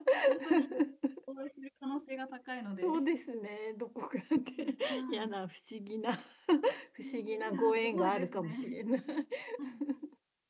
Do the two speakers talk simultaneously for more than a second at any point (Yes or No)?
Yes